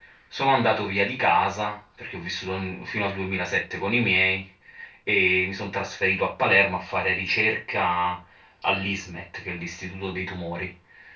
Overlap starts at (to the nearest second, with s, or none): none